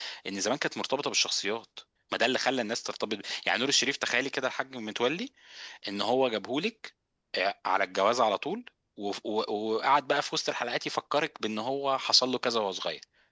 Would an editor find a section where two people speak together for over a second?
No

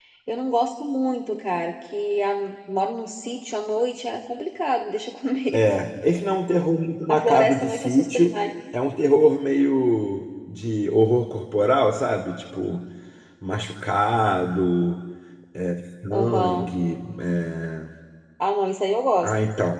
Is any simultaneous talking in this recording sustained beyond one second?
Yes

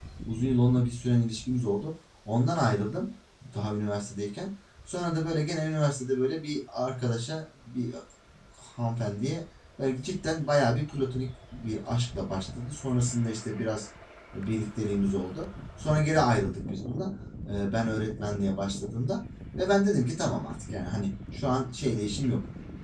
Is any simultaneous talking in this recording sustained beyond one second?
No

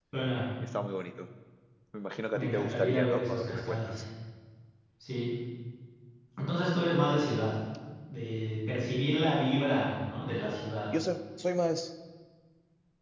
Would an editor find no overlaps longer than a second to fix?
No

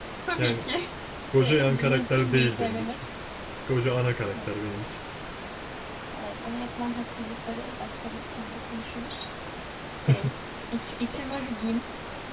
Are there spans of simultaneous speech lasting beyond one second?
Yes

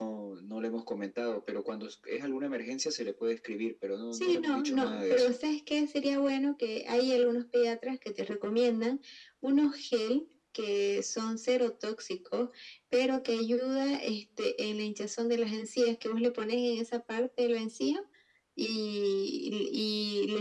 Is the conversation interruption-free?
No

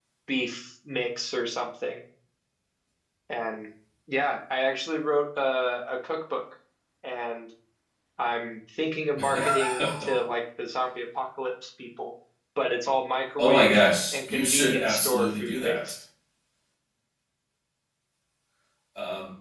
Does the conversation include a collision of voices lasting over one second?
Yes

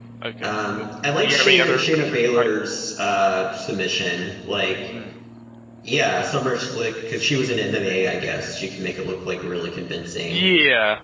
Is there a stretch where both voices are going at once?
Yes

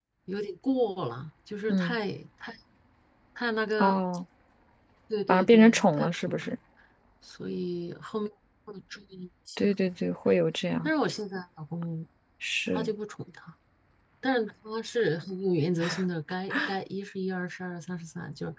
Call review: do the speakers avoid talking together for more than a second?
No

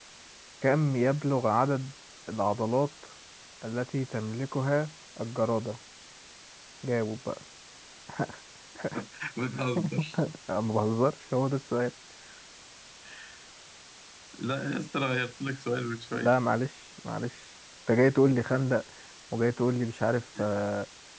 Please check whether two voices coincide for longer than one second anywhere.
No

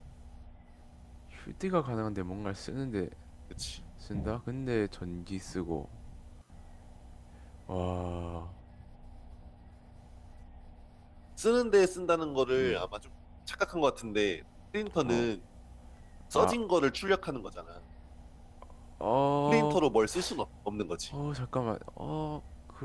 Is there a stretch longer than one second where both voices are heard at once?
No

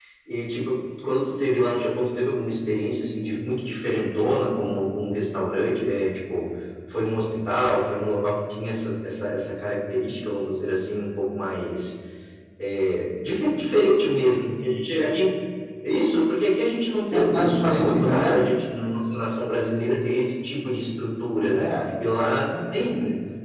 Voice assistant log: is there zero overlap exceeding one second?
No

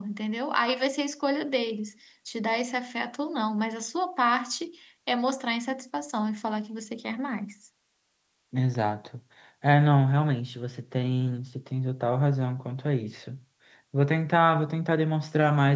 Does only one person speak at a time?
Yes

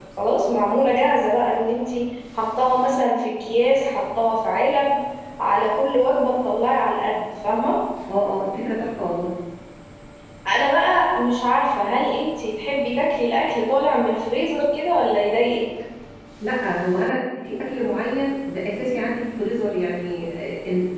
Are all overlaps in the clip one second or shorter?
Yes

